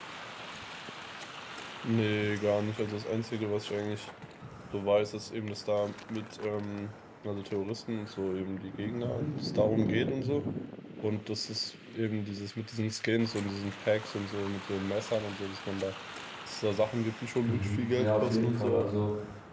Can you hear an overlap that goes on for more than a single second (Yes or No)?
Yes